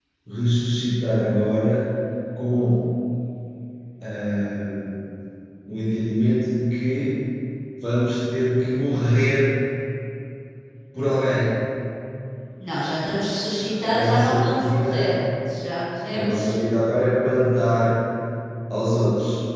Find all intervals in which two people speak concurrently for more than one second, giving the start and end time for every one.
13.7-15.1

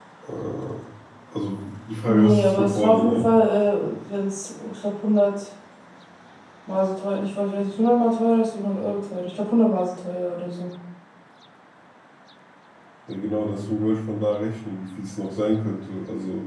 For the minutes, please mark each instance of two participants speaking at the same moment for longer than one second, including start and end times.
2.1-3.3

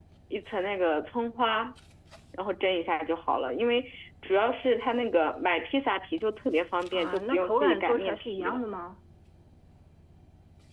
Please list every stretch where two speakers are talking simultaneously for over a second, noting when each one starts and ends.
6.9-8.6

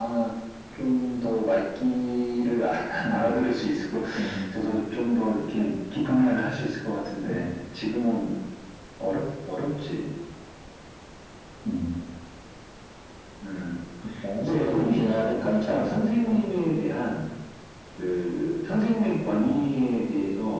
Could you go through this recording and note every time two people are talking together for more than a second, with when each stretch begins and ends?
14.4-16.4

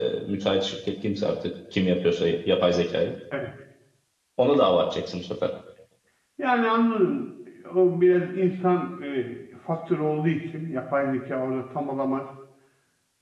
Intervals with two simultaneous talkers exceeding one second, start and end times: none

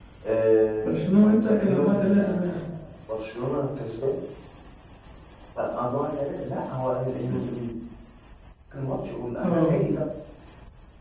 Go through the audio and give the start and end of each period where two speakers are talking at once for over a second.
0.8-2.6

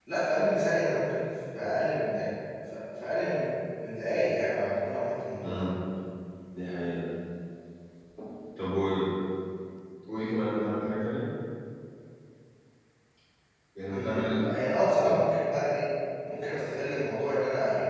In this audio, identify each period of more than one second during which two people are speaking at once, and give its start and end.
none

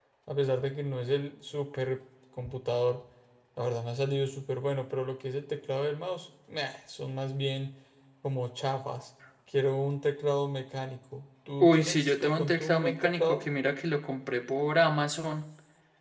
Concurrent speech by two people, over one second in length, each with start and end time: 11.6-13.4

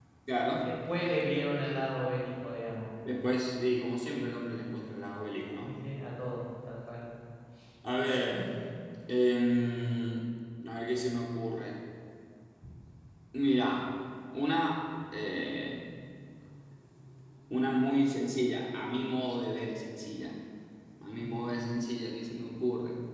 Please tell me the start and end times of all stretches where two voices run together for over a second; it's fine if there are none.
none

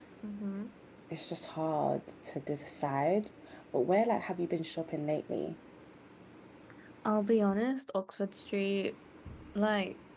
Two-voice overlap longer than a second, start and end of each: none

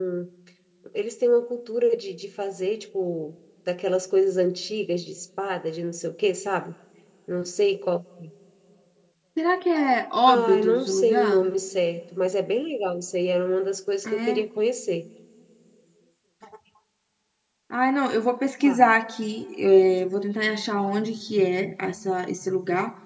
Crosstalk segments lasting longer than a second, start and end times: 10.3-11.5

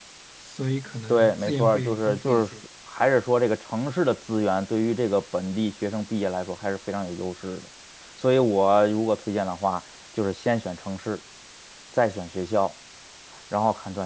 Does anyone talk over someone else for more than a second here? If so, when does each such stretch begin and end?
1.1-2.5

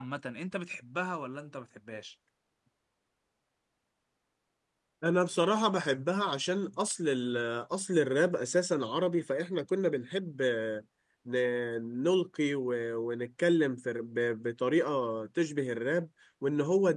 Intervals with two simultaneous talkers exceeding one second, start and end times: none

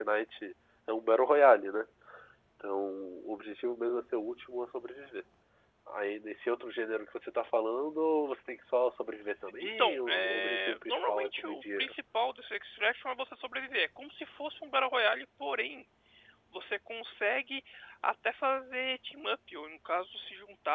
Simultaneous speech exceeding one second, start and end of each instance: 9.6-11.9

